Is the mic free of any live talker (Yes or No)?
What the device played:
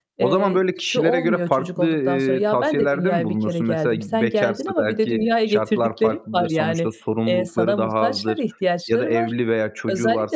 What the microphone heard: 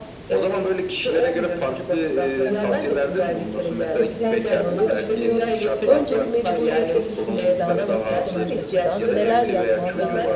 No